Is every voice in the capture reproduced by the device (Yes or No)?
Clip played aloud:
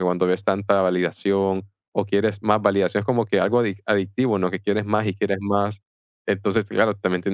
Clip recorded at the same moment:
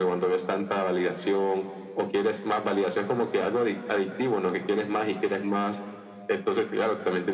Yes